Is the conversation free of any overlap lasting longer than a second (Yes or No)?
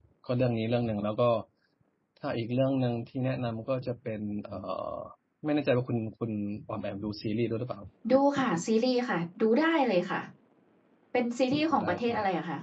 Yes